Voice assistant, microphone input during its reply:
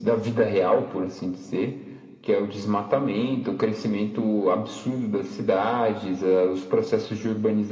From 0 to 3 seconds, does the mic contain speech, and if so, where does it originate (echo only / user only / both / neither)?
echo only